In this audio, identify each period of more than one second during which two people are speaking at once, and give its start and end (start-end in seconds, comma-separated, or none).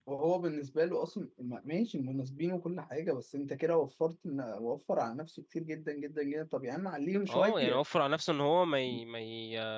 none